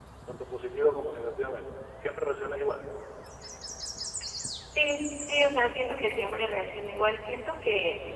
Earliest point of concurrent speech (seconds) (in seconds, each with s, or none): none